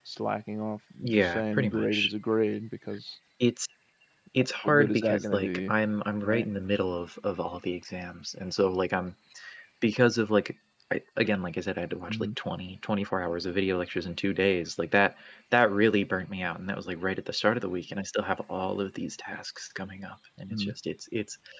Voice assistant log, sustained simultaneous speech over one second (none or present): present